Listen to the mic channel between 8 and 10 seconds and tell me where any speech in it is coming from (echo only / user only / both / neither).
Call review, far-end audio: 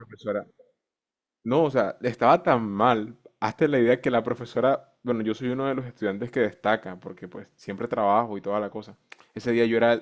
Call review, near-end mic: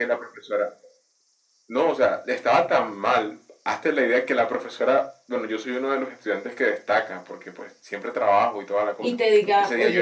both